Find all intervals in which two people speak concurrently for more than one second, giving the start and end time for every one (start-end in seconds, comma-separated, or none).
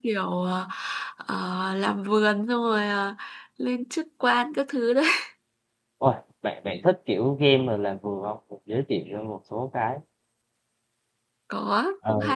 none